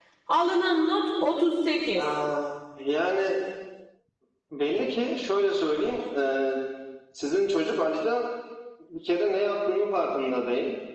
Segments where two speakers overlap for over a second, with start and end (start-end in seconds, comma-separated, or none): none